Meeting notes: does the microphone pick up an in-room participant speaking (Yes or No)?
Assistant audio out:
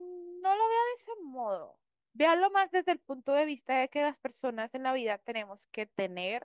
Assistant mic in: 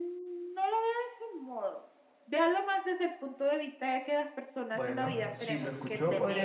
Yes